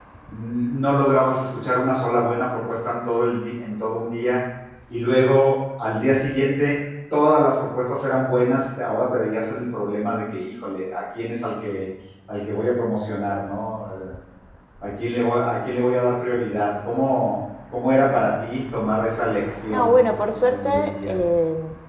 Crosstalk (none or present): present